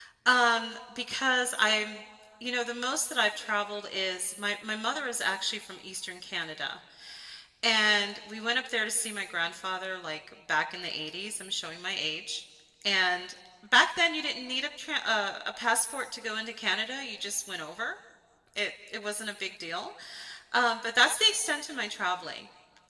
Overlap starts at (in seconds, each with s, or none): none